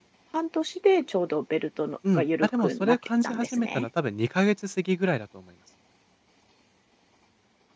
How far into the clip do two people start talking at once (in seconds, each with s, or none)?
2.0 s